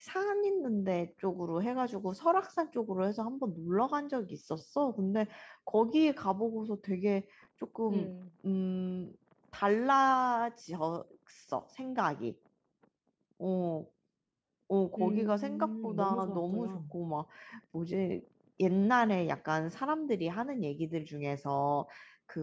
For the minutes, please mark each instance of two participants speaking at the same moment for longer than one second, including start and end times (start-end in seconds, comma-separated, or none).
15.0-16.8